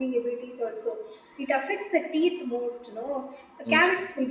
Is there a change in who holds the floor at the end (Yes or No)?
No